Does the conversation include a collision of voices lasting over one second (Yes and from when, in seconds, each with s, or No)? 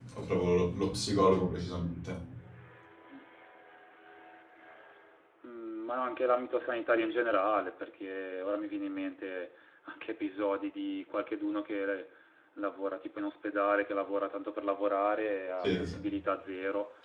No